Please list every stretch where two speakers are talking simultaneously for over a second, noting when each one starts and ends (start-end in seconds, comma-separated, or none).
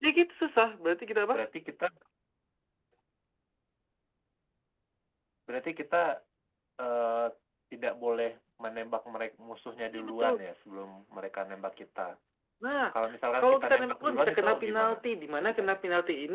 13.4-15.0